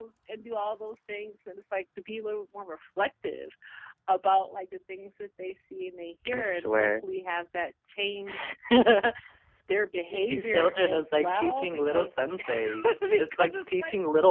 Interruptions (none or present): present